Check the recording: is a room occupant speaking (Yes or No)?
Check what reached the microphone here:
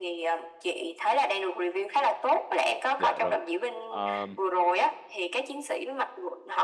Yes